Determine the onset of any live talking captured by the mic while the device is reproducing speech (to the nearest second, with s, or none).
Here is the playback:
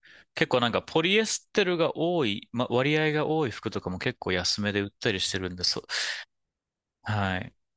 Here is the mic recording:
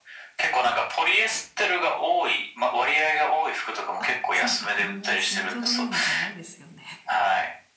4 s